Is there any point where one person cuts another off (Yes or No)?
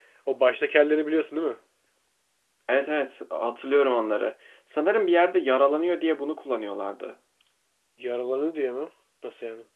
No